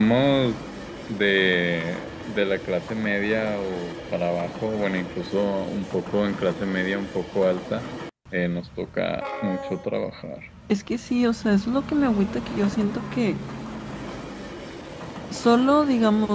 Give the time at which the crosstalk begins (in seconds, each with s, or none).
none